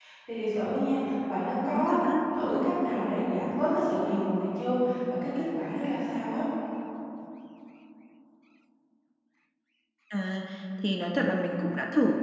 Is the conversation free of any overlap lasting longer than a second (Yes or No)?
Yes